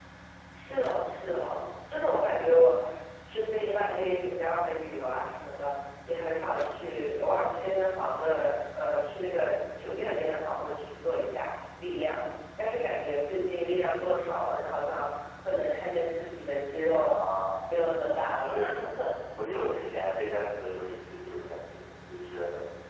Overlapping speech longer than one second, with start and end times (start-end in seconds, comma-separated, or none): none